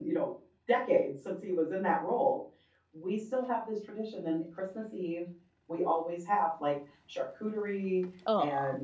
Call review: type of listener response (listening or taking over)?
listening